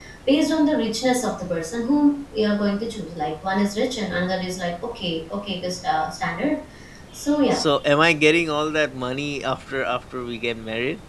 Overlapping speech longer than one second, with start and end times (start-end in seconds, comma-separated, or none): none